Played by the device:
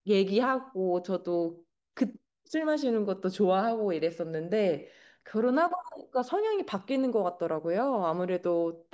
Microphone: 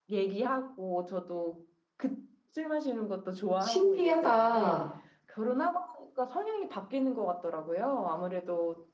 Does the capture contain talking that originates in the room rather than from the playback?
Yes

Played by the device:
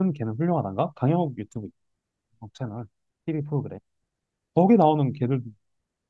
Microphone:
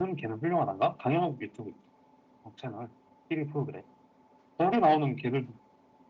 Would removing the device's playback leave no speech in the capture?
Yes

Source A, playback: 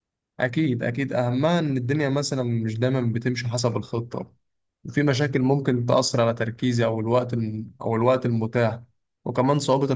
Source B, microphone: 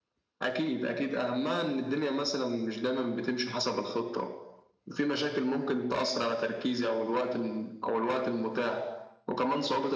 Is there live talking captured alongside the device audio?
No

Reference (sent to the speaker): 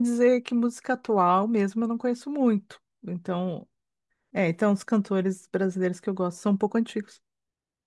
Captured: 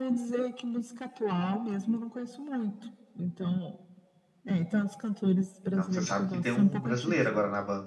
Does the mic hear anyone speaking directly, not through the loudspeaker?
Yes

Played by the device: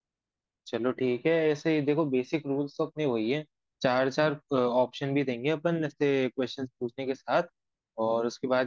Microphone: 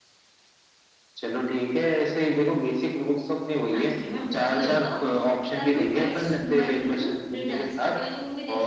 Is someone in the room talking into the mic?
Yes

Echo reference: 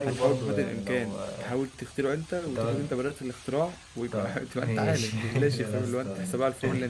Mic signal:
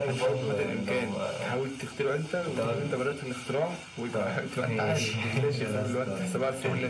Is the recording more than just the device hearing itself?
No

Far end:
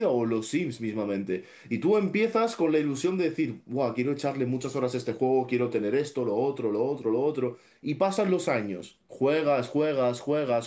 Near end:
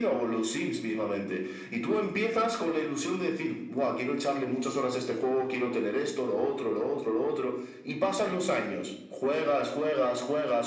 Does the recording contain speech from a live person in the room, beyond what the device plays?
No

